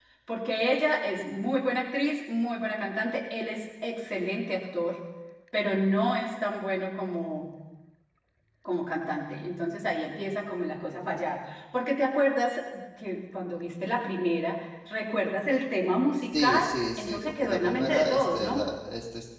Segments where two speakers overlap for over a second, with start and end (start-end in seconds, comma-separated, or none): 16.4-18.7